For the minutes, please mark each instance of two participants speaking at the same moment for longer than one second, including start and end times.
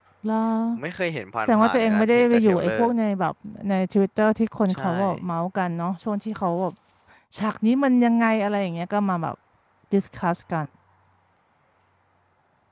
1.5-2.9

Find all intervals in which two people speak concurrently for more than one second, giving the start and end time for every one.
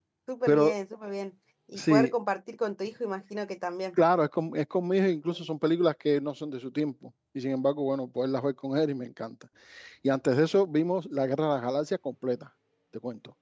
none

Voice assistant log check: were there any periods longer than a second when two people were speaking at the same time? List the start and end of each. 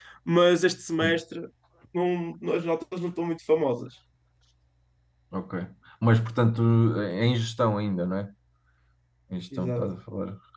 none

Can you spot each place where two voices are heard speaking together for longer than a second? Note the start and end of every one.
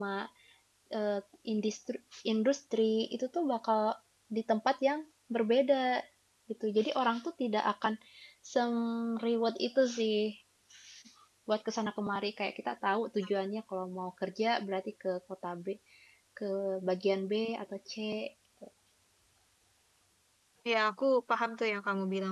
none

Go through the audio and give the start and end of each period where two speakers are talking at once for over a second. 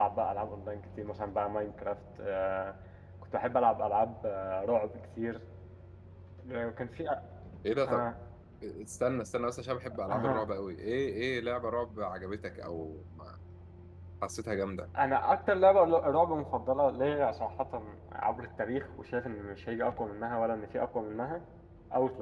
none

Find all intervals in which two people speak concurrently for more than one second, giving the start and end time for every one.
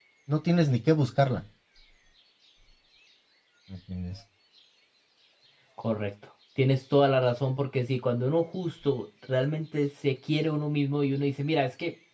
none

